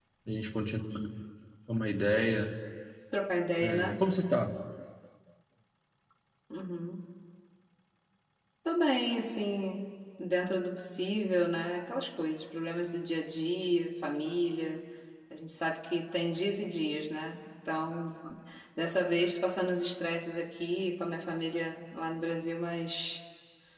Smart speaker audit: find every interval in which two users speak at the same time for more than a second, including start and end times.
none

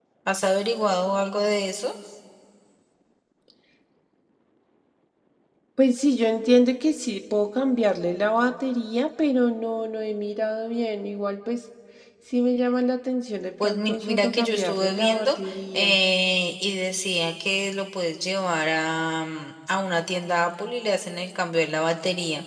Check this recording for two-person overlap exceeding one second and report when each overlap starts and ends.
13.6-15.4

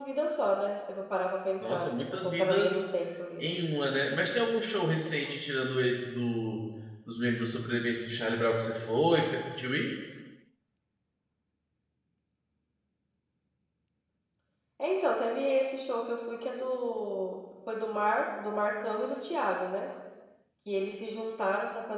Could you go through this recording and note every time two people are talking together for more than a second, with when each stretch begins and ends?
1.6-2.8

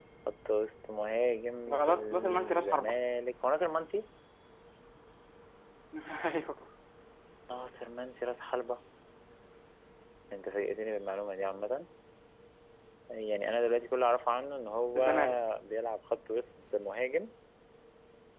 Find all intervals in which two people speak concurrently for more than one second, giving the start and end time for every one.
1.7-3.0

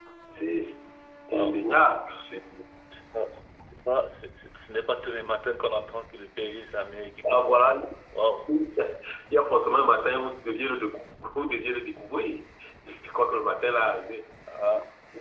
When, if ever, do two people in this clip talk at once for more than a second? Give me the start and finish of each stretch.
none

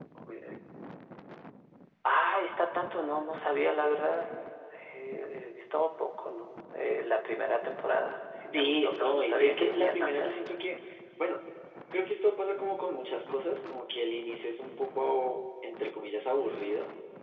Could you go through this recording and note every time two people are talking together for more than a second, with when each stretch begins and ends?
8.5-10.3

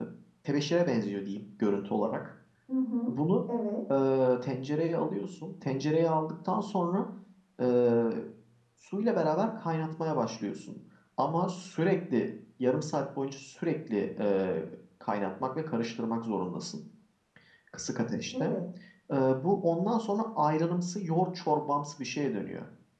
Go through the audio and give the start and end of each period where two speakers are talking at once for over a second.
none

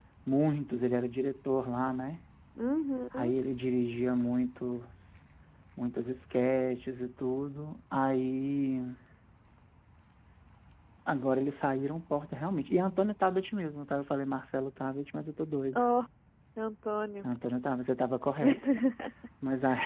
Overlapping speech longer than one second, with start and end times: none

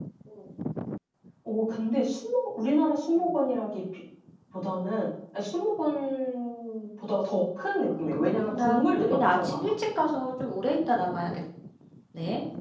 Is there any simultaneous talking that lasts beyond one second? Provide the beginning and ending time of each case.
8.2-9.7

